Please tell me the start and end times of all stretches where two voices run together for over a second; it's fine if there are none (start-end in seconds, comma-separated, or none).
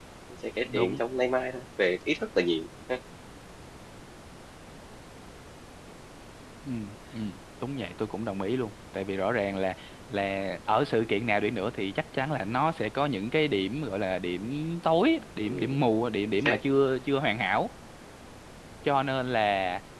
none